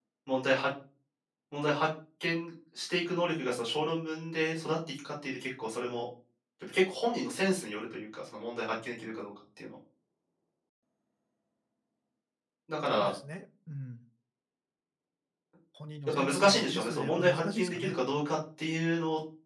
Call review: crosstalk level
present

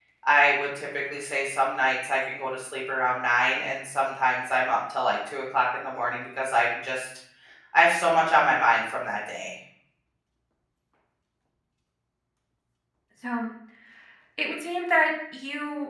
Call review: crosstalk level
none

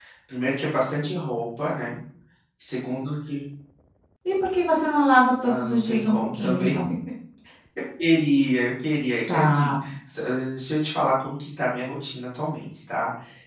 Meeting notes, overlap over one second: present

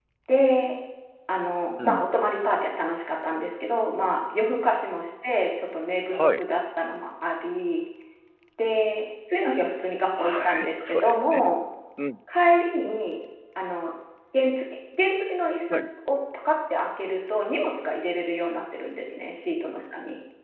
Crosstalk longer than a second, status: present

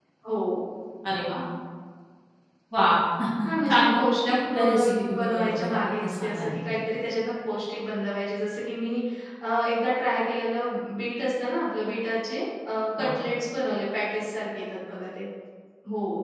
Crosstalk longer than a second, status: present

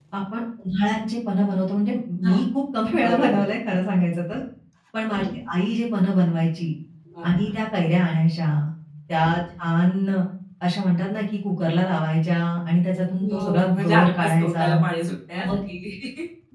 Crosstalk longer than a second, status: present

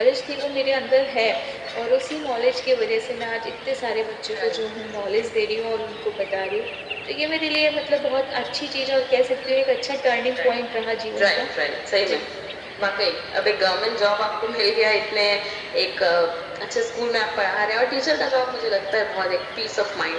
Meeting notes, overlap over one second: none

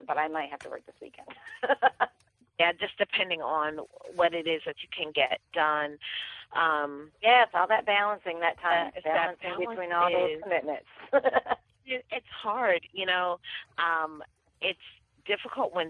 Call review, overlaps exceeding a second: present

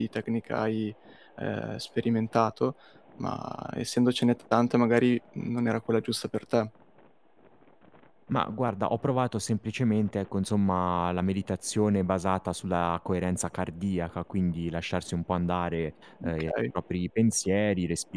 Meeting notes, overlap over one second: none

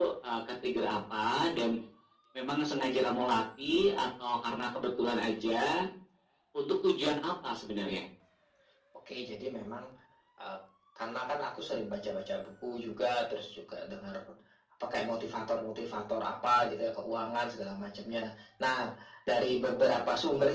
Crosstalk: none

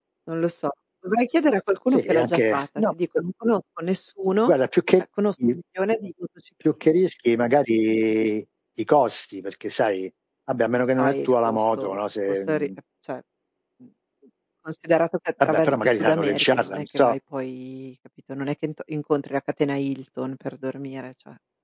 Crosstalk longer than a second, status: present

